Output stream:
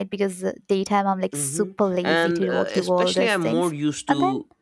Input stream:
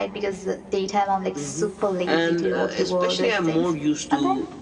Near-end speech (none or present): none